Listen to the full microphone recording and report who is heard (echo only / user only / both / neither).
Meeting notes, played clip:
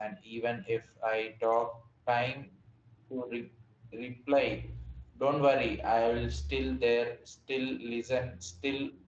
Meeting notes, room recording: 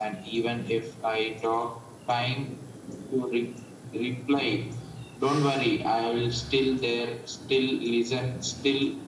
echo only